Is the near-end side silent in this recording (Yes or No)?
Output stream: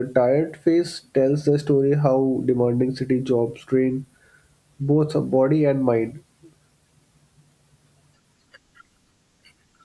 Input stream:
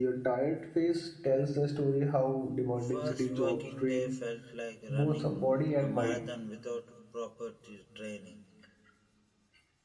No